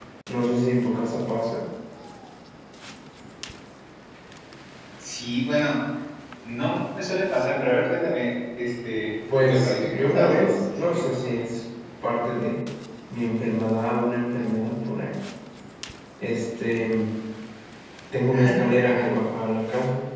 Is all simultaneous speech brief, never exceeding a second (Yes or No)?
No